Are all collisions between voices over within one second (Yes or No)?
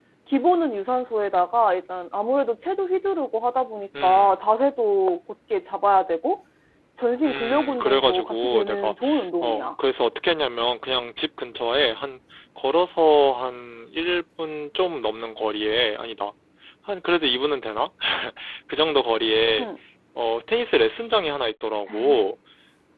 No